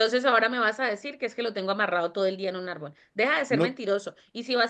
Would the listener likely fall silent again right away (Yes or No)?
Yes